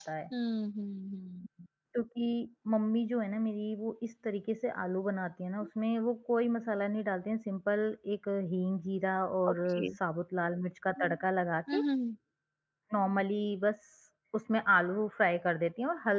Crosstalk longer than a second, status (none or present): none